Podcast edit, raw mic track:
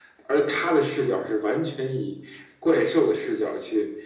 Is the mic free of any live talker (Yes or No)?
Yes